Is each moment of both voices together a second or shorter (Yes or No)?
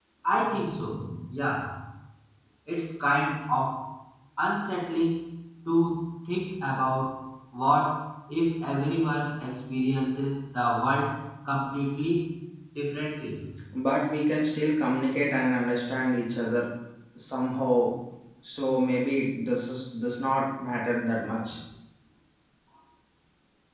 Yes